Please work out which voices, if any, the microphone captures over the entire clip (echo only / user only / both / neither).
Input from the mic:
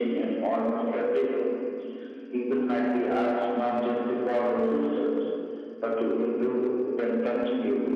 echo only